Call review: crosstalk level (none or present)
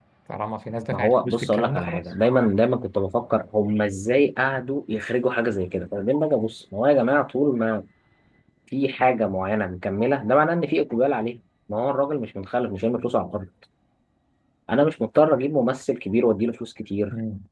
present